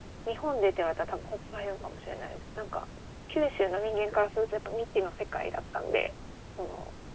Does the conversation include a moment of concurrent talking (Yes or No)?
No